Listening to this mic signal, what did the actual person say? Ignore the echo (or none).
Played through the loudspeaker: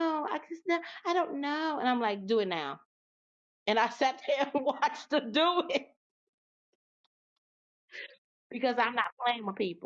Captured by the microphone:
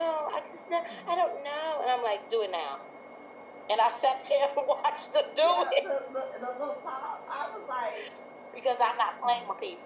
yeah, the, the, the little pop. I was like,